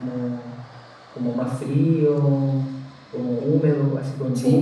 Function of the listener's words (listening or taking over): listening